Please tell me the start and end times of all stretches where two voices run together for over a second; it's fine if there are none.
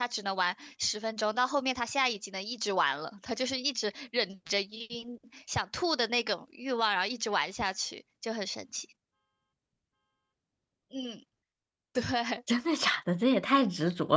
none

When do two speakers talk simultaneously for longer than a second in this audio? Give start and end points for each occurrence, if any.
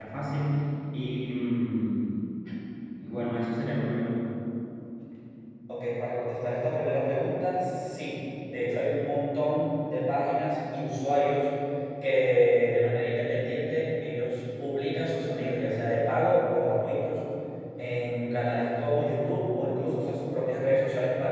none

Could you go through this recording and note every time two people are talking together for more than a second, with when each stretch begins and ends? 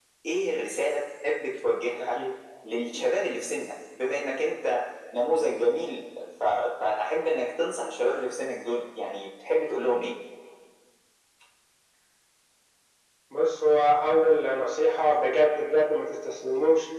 none

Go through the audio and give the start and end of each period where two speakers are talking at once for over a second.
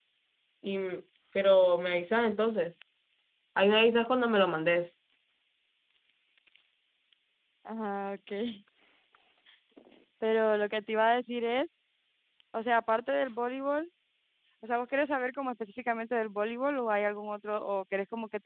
none

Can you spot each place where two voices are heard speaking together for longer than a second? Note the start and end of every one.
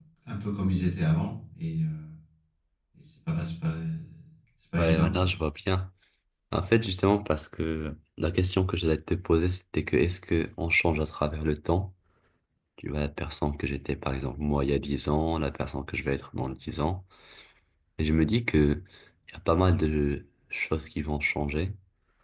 none

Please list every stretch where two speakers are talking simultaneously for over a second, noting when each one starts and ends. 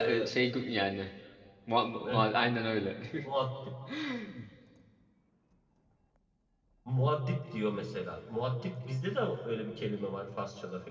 none

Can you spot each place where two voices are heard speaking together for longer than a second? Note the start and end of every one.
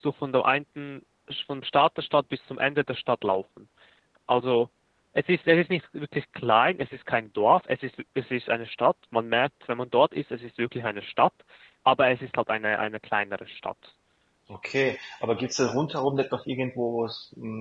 none

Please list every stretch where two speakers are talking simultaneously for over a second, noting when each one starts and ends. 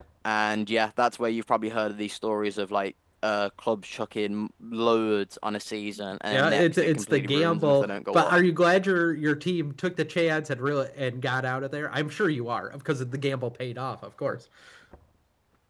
6.3-8.3

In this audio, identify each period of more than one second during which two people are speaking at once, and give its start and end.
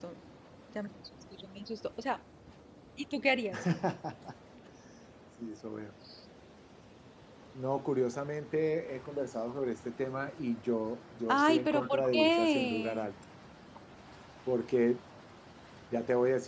11.3-13.1

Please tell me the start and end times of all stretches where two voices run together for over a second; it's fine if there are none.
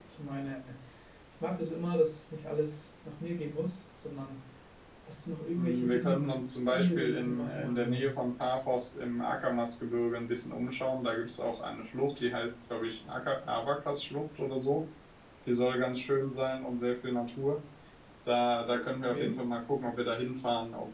5.5-8.2

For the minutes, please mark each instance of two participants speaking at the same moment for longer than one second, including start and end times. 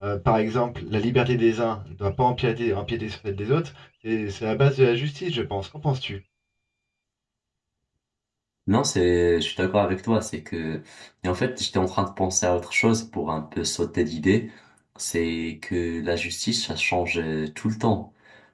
none

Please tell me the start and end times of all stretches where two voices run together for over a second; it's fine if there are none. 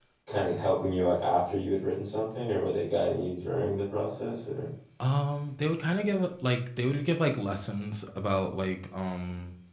none

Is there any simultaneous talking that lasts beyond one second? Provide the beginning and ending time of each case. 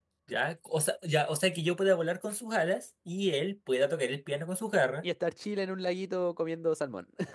none

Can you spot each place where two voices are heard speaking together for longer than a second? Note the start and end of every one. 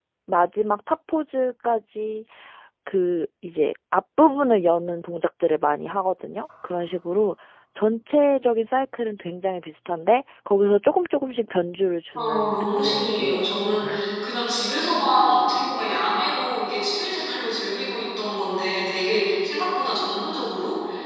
12.2-13.5

